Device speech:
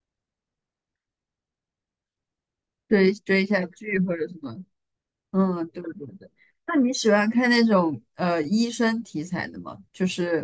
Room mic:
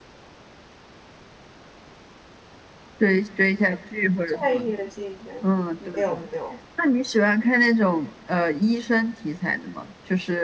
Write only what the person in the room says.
在意的纪元没有没有。

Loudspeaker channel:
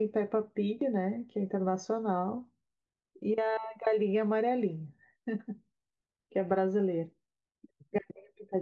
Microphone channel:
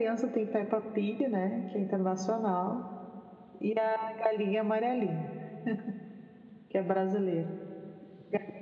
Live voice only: none

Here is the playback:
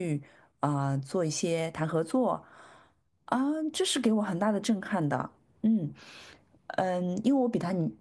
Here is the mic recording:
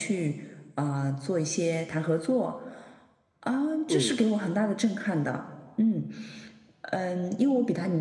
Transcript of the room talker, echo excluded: 嗯

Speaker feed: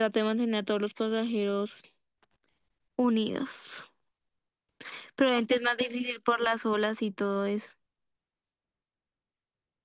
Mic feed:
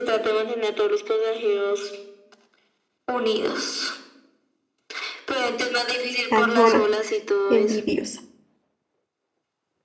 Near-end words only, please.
Cansona, envidiosa.

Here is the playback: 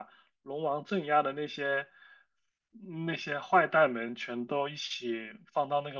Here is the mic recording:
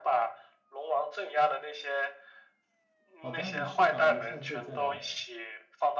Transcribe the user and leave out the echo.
好的，你去吧，我们下次可以再聊。

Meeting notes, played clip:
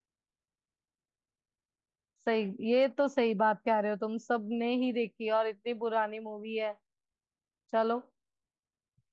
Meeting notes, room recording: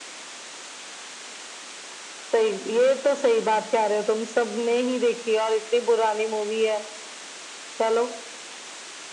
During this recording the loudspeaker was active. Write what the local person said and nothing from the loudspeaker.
none

